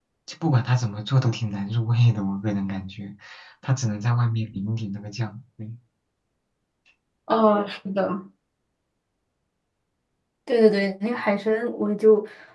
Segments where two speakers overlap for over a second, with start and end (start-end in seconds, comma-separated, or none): none